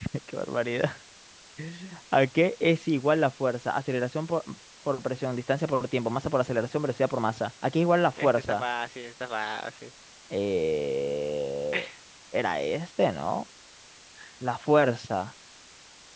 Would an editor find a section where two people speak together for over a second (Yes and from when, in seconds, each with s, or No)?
No